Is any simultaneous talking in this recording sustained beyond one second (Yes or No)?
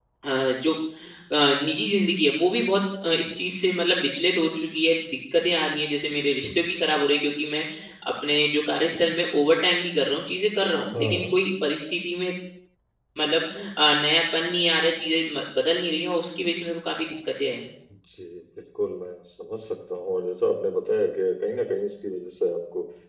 No